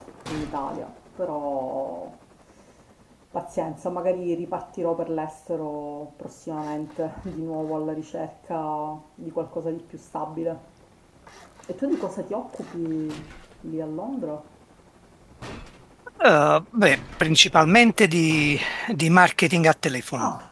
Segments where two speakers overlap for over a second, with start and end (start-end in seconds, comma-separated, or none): none